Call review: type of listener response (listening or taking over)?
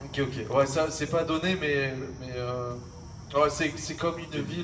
listening